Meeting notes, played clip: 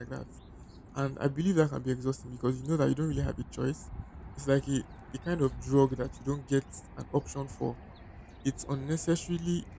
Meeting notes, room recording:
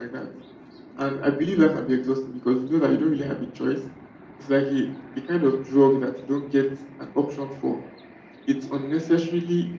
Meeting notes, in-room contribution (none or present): none